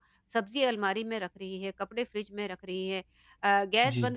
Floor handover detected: No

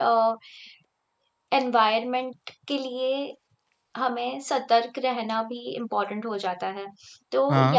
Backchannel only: Yes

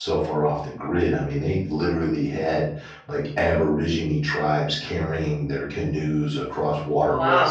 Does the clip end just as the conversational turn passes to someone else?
No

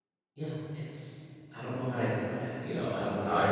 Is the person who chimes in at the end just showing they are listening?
No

